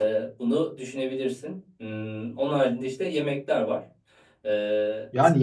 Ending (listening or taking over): taking over